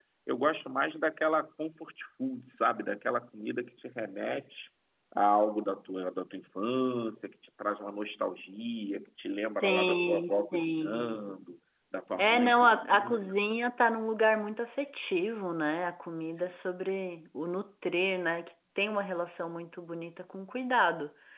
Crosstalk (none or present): present